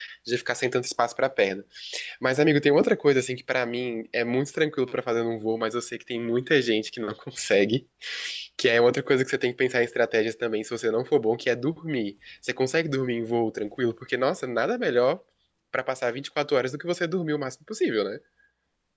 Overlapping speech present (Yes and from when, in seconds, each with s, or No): No